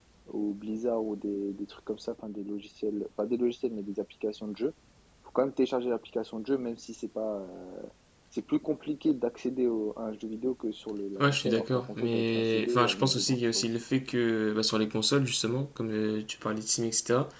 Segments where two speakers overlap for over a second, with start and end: 11.2-13.6

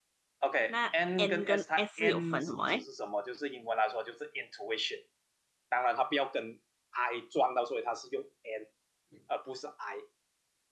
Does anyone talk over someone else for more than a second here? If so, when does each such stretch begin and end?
0.7-2.8

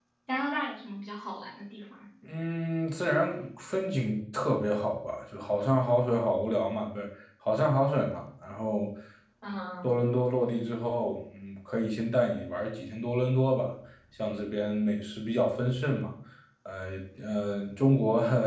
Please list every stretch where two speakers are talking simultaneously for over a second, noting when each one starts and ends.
none

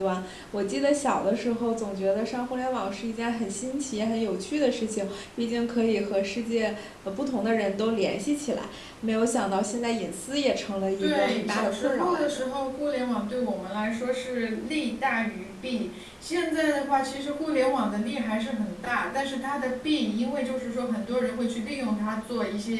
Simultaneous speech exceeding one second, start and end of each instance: 11.0-12.4

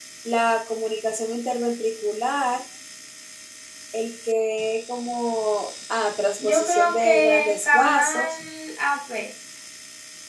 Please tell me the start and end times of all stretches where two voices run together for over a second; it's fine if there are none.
6.4-8.4

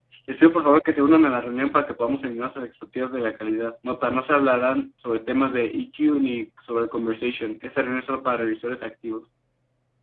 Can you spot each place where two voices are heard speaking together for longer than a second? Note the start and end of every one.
none

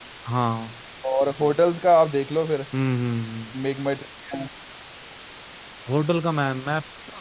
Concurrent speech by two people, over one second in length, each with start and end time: none

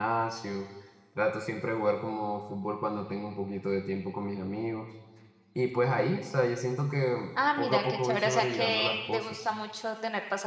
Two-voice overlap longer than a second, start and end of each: 7.6-9.5

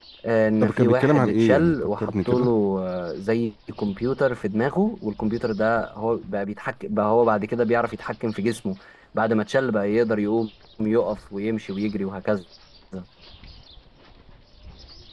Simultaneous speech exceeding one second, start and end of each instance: 0.6-2.5

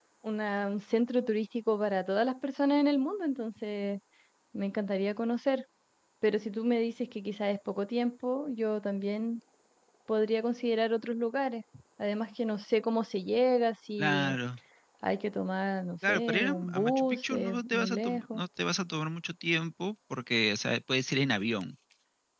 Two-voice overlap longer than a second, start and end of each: 16.1-18.4

